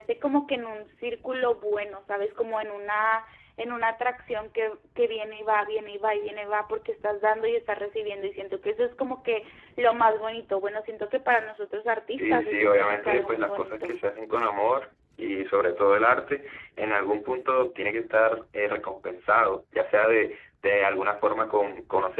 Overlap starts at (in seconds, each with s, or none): 12.1 s